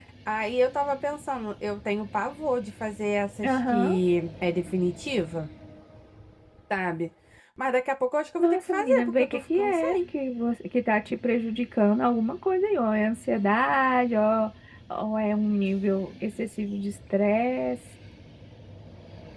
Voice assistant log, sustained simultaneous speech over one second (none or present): present